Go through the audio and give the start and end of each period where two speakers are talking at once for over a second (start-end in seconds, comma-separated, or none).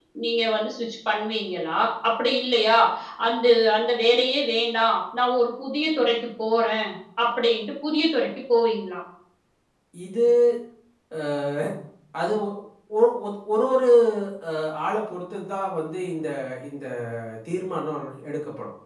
none